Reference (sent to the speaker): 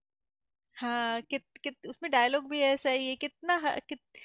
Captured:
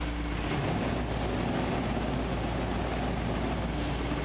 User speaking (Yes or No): No